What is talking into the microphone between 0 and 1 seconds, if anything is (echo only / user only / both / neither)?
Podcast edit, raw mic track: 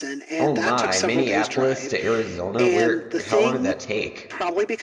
both